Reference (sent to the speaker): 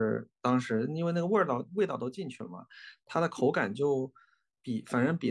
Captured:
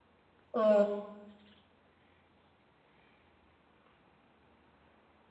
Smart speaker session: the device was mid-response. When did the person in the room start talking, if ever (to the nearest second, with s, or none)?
1 s